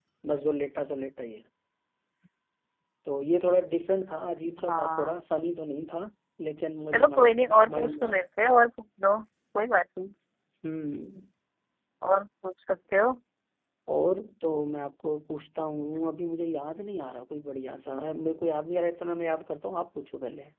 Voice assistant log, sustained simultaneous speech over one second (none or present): present